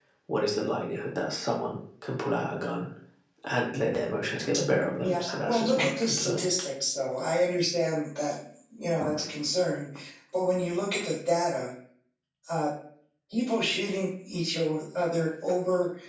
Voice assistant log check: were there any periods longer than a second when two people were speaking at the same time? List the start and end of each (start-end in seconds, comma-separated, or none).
5.0-6.4